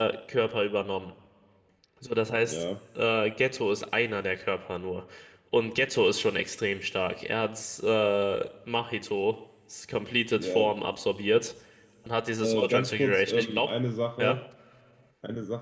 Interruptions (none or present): present